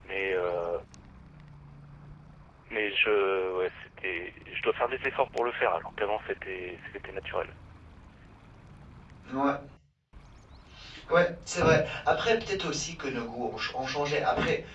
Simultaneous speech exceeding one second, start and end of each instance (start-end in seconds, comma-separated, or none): none